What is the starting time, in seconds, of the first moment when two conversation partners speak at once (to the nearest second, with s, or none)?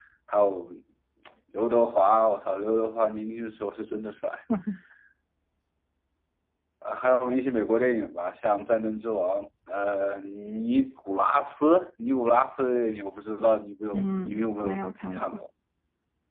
14 s